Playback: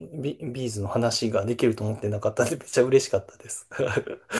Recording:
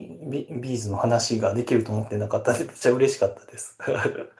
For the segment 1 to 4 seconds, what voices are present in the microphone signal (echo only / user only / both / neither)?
echo only